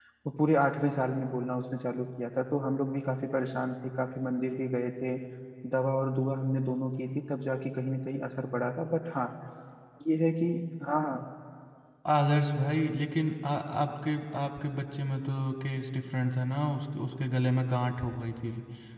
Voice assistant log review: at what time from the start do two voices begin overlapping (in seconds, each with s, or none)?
none